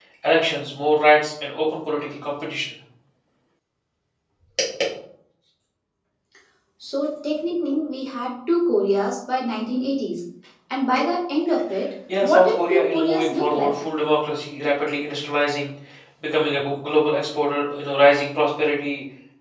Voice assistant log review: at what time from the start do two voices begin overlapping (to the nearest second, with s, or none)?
12 s